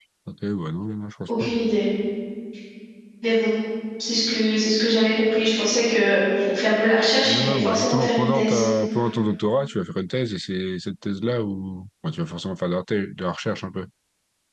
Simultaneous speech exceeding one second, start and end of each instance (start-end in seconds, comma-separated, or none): 7.2-8.6